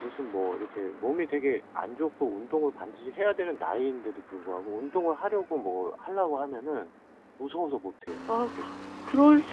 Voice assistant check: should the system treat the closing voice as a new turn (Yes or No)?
Yes